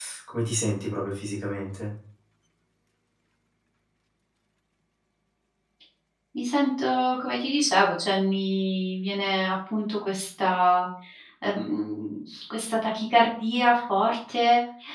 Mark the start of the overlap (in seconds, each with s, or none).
none